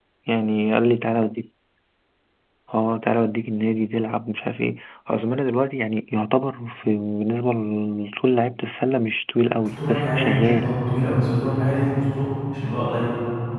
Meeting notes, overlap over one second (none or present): present